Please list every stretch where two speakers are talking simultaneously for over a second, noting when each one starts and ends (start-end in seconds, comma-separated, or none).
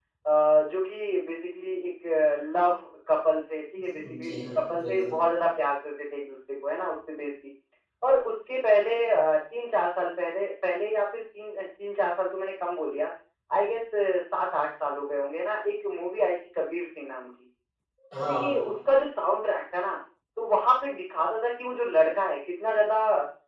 3.8-5.2